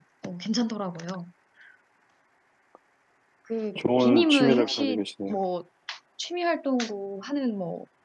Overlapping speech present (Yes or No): Yes